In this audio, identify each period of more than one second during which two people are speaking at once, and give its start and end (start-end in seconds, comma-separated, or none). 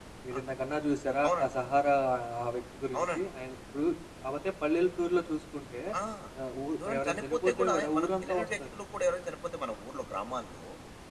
6.8-8.8